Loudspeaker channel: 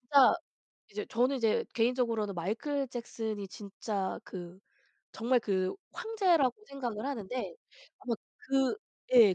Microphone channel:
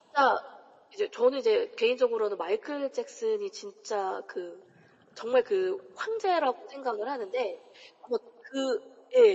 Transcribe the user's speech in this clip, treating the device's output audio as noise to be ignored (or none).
none